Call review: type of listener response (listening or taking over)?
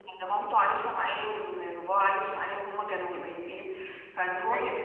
listening